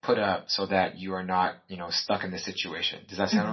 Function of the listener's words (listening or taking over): taking over